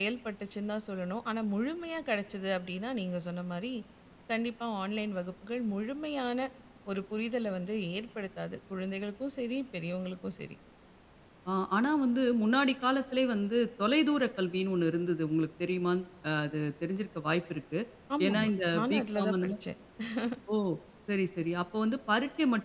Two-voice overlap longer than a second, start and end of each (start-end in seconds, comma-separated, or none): 18.3-19.5